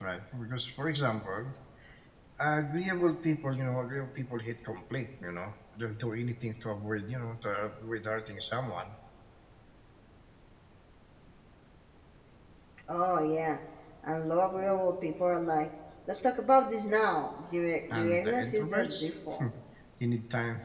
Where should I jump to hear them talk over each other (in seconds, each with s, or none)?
17.9 s